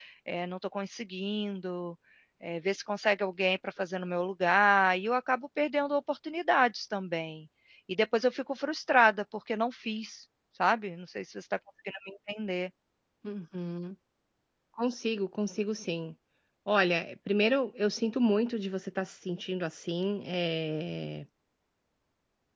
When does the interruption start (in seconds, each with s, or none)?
none